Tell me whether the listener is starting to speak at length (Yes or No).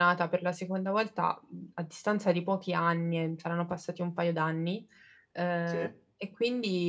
No